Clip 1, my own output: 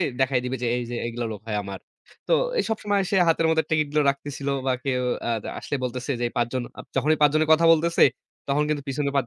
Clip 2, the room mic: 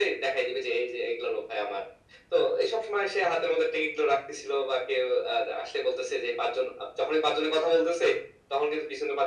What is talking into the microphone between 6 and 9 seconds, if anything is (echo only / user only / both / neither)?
echo only